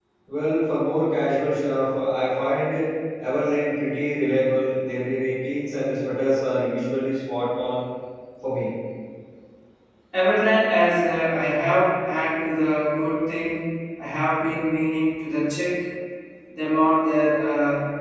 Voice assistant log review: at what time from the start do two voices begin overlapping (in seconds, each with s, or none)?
none